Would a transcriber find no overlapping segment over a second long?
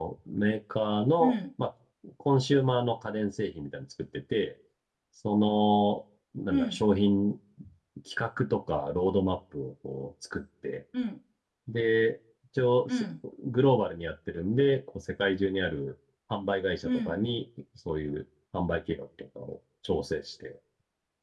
Yes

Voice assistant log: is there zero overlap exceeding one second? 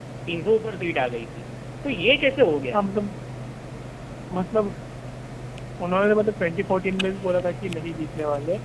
Yes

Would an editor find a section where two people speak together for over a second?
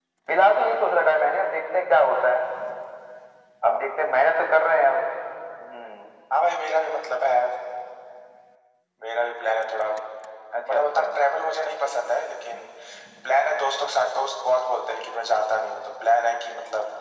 No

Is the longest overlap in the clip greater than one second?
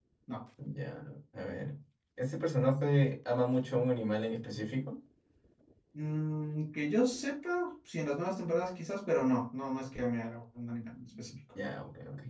No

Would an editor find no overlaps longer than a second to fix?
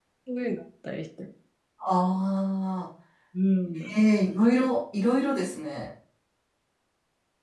Yes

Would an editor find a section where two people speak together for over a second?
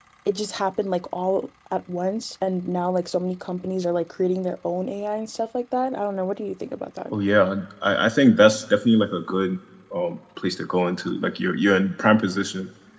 No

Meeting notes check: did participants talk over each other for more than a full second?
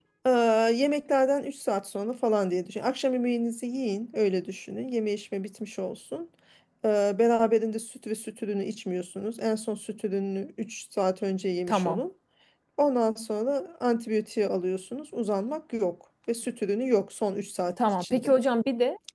No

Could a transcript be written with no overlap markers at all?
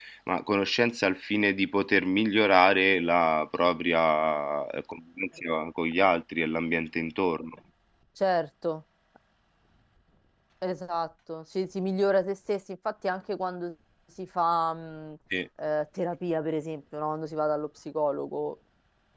Yes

